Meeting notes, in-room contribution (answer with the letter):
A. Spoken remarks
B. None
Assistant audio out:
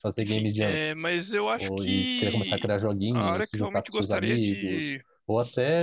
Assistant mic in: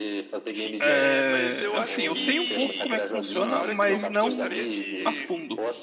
A